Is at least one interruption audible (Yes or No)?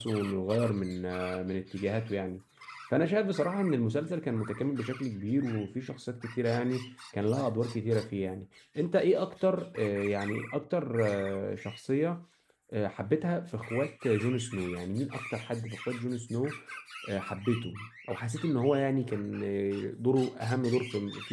No